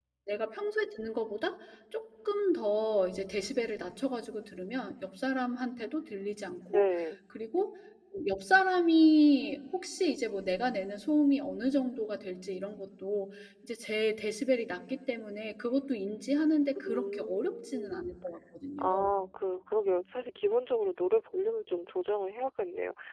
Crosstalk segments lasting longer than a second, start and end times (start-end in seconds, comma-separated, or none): 16.8-18.0